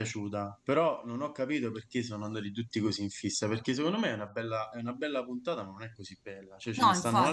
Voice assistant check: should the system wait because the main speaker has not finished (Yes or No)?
Yes